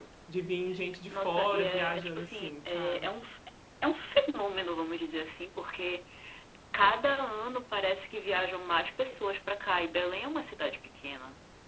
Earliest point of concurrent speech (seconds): 1.1 s

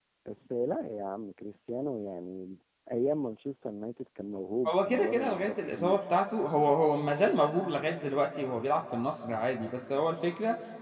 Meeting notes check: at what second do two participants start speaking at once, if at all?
4.6 s

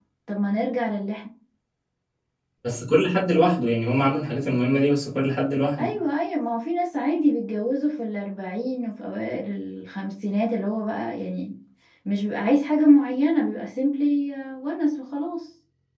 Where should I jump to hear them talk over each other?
none

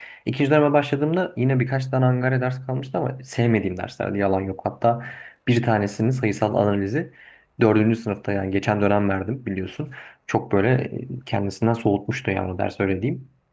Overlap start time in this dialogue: none

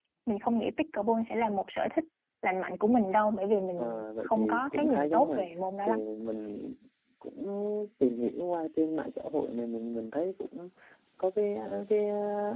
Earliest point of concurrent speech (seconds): 3.8 s

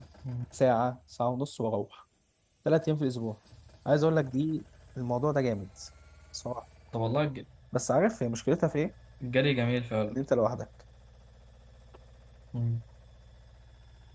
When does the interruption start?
none

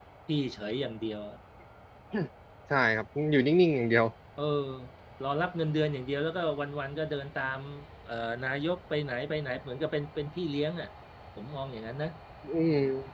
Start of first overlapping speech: none

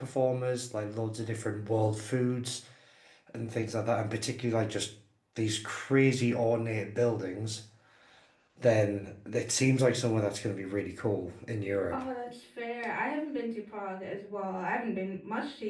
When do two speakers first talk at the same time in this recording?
none

